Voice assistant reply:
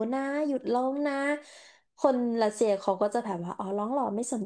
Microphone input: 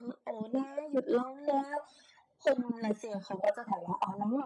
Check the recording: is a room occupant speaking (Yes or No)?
No